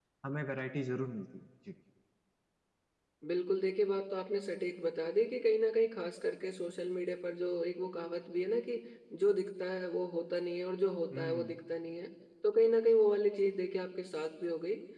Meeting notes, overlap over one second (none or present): none